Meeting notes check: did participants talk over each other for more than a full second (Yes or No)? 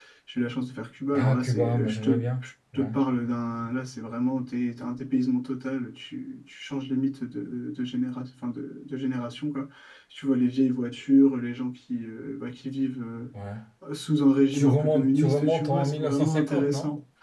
Yes